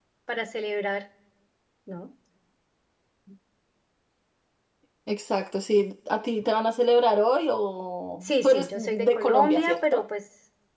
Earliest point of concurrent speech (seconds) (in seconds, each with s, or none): 8.2 s